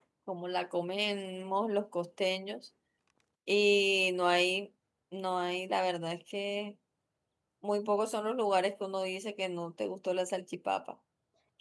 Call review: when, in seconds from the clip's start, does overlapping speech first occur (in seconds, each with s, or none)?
none